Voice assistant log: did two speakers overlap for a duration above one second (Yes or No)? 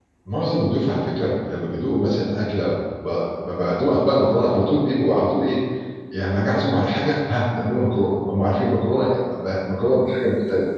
No